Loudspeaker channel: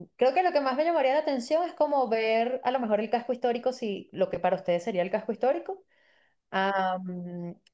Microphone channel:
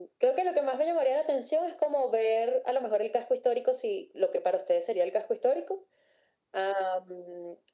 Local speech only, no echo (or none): none